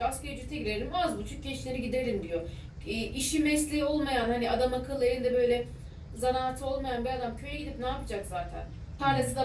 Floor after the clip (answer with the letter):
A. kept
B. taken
A